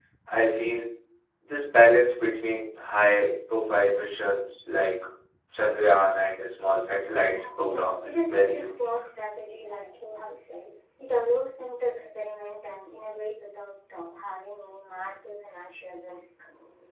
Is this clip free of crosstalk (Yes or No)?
No